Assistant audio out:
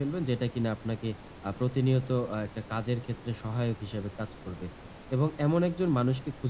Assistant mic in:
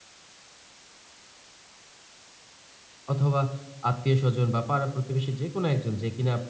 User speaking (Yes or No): Yes